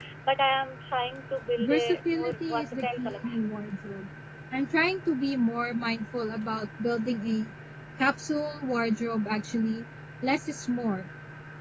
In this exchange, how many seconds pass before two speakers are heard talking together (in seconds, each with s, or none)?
1.6 s